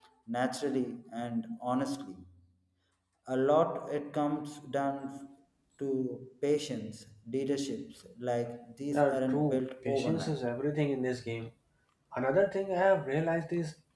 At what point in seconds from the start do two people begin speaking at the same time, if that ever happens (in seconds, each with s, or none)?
8.9 s